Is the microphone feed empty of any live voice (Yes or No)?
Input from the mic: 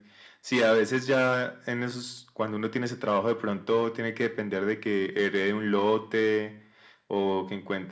Yes